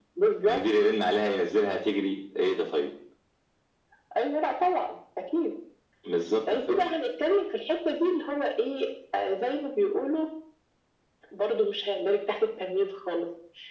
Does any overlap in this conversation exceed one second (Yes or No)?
No